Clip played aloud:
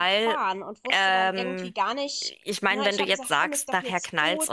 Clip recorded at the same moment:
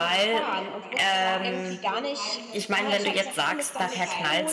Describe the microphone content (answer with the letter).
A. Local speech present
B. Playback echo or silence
A